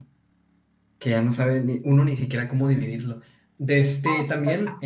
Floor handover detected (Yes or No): No